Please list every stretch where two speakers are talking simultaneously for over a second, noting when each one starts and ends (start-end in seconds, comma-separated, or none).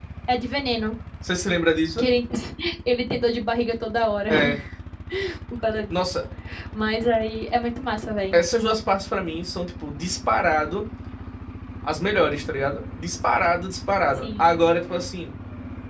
none